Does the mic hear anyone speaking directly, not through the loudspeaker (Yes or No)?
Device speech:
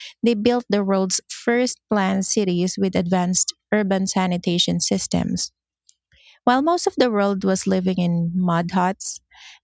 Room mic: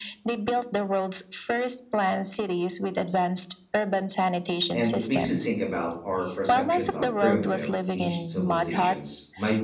Yes